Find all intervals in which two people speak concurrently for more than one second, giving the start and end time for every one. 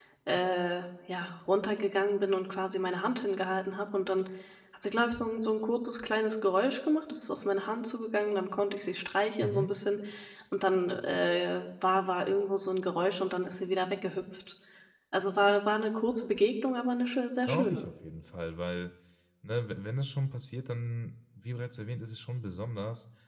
none

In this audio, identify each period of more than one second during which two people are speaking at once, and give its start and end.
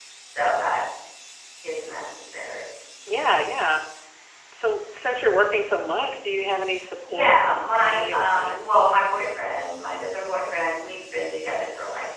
7.1-8.8

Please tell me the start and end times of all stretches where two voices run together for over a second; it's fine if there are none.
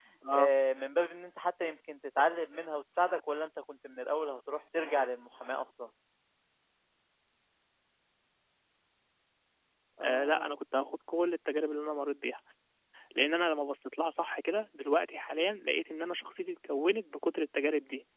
none

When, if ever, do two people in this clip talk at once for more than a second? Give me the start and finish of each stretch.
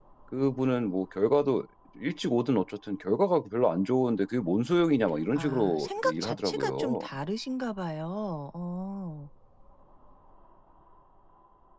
5.3-7.1

